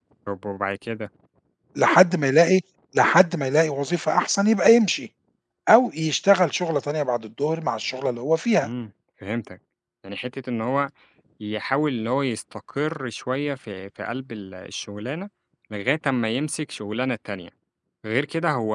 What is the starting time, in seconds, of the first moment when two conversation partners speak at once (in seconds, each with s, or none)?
none